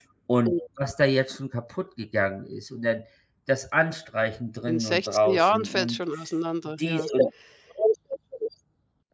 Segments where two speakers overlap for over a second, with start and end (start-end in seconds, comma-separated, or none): 4.7-6.0